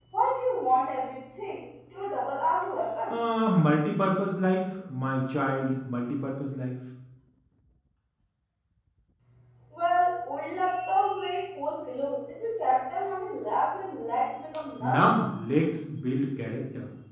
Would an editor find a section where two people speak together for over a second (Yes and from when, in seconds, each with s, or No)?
No